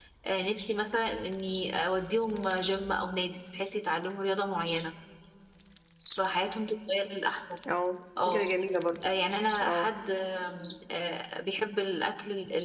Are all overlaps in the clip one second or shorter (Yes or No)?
Yes